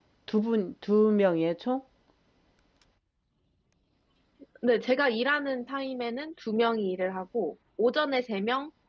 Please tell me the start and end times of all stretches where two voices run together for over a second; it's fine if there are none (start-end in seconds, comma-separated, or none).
none